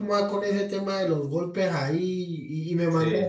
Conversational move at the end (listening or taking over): listening